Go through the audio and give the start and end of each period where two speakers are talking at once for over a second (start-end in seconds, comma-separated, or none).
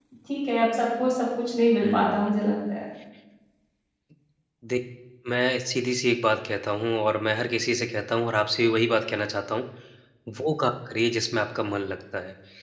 none